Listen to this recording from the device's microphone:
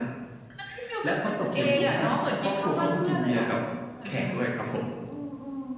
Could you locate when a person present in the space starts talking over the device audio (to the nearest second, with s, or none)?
2 s